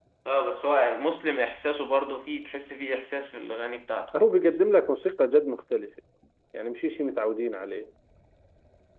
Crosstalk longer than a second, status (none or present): none